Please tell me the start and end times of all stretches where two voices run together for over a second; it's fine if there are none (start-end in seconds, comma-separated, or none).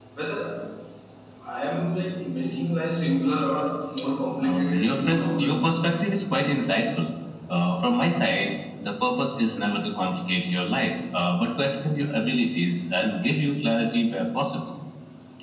4.4-5.6